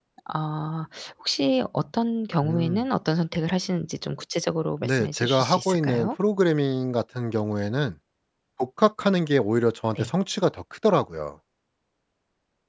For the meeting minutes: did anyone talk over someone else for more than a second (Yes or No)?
Yes